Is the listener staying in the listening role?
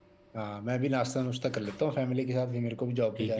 No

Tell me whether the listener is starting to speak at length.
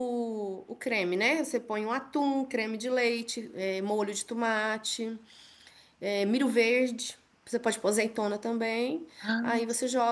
No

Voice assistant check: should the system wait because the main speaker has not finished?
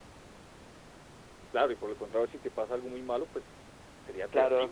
No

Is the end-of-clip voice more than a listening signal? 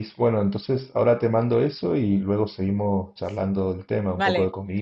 Yes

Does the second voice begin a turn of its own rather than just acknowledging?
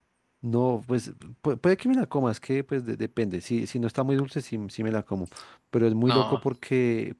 No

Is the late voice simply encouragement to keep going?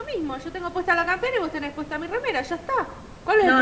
No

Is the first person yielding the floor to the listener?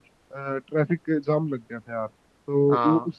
No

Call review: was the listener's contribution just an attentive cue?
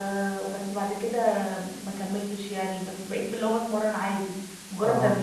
Yes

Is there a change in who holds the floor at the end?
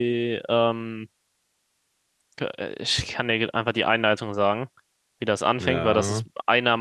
No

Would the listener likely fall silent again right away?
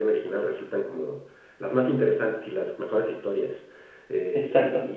Yes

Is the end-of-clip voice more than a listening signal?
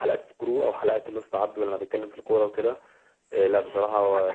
Yes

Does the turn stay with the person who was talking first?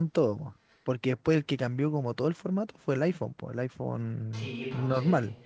No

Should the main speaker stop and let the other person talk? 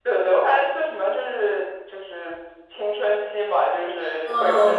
Yes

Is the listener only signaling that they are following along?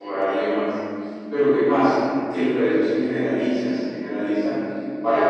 Yes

